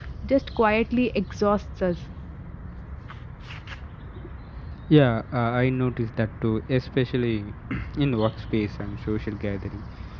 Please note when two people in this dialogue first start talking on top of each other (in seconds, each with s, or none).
none